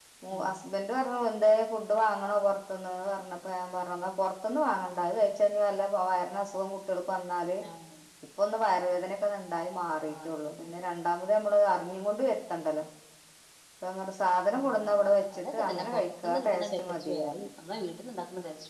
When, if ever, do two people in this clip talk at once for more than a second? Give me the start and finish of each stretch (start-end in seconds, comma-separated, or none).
15.4-17.3